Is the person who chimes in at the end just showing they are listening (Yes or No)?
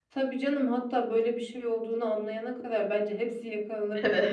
No